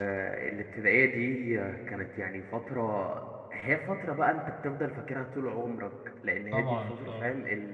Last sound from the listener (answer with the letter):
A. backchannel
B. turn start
A